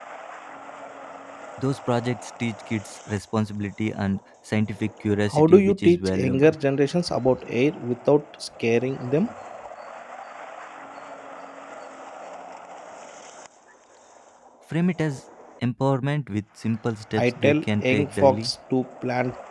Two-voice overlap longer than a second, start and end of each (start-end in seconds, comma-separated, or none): 5.3-6.5, 17.2-18.5